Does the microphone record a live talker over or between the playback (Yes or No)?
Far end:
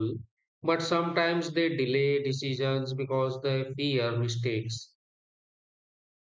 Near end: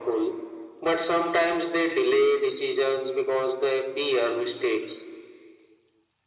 No